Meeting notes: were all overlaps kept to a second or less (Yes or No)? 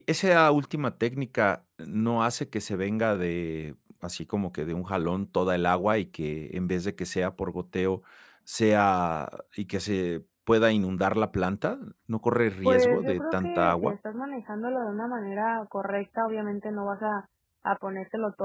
No